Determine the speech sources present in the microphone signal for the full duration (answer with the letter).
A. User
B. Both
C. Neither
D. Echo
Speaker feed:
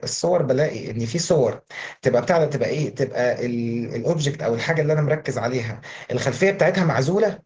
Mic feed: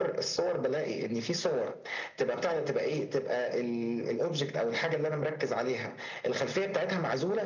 D